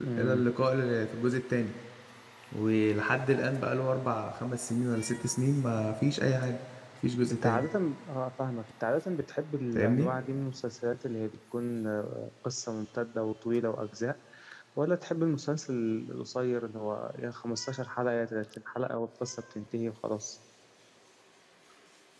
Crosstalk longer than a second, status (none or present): none